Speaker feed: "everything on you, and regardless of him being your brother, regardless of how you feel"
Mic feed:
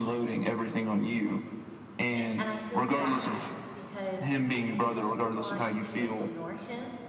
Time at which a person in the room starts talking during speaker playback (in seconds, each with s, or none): 2.1 s